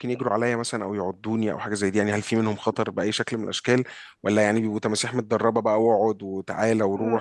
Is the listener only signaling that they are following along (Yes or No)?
No